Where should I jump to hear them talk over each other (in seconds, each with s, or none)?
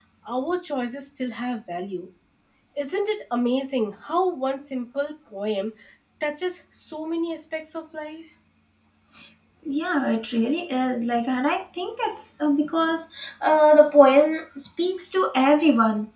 none